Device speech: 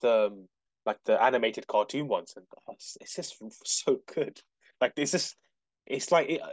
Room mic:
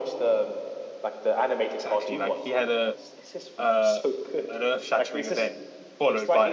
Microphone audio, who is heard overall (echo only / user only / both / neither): both